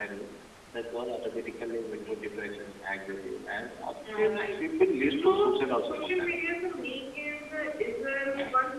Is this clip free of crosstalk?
No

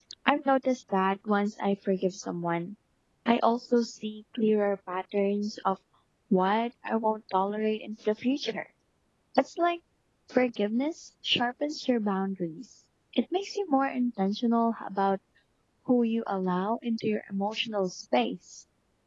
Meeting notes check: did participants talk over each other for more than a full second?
No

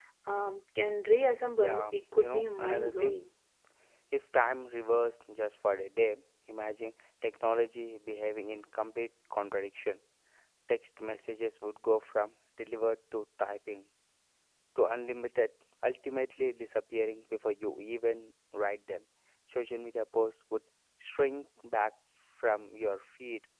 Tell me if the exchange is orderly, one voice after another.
No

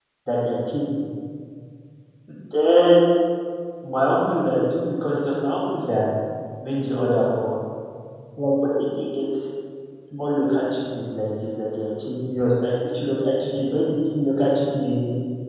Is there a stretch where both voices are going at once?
No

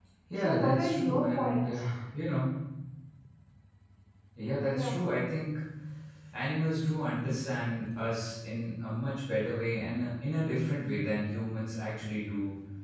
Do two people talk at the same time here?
Yes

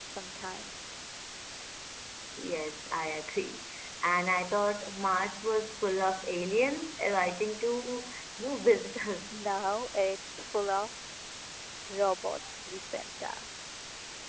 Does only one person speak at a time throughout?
Yes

